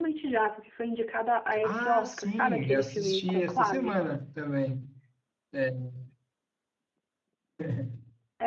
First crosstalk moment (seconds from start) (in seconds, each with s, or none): 1.5 s